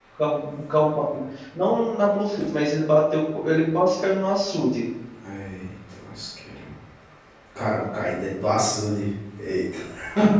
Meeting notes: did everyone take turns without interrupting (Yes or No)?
Yes